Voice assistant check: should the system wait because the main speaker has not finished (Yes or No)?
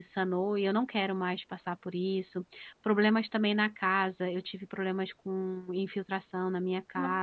Yes